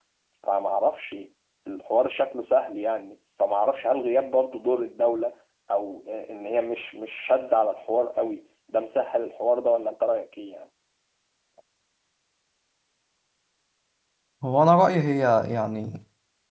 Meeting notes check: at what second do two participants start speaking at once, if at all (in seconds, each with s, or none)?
none